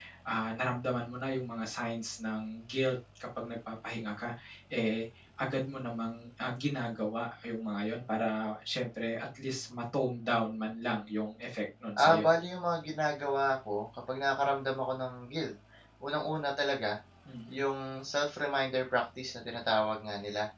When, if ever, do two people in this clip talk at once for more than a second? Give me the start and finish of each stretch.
none

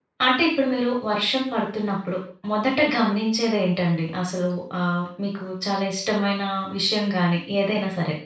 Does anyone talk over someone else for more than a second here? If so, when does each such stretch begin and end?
none

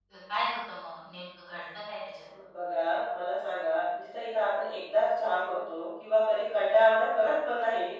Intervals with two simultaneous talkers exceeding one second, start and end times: none

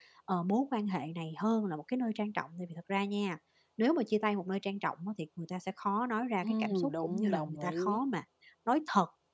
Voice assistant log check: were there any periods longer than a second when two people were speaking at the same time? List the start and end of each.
6.4-8.0

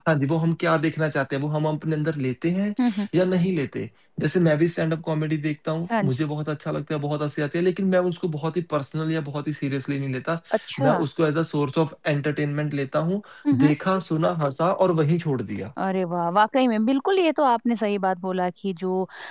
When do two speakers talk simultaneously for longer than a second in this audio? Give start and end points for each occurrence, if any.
none

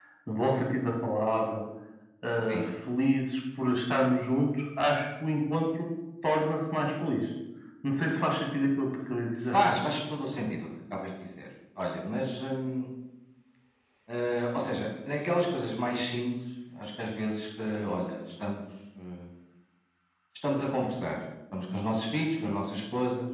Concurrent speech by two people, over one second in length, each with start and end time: none

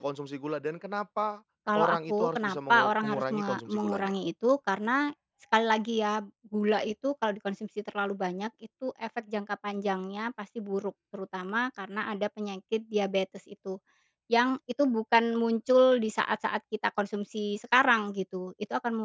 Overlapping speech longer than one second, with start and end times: 1.7-4.1

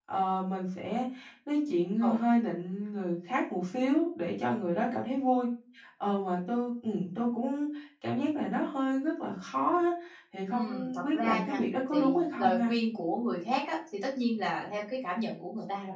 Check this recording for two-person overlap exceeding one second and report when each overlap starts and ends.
10.5-12.7

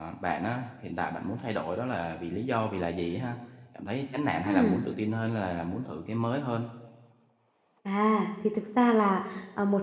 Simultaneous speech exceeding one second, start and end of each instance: none

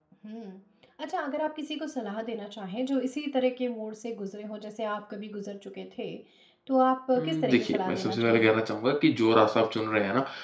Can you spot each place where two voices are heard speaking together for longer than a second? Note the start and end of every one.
7.2-8.6

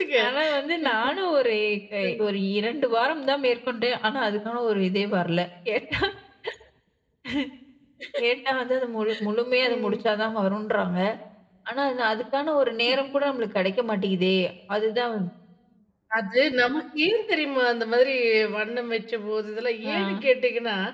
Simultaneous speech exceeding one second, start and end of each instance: none

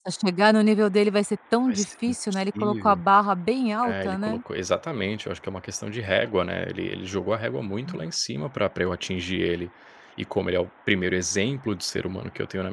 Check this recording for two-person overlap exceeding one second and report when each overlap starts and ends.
1.7-3.0

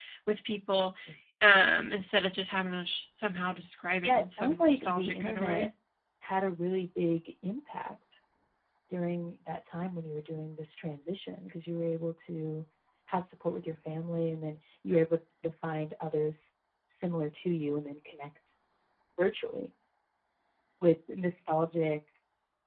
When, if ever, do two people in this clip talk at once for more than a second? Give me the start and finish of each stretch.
4.0-5.7

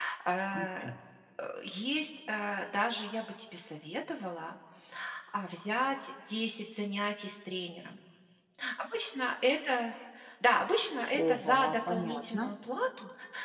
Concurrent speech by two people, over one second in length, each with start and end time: 11.3-12.5

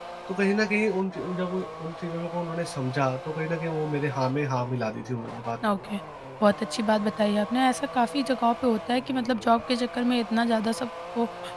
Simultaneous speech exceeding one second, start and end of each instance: none

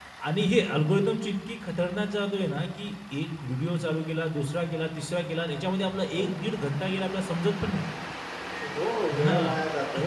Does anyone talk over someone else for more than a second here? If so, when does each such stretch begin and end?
none

